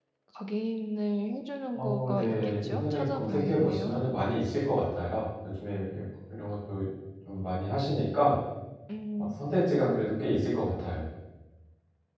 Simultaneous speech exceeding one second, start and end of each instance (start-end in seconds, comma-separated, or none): 1.8-3.9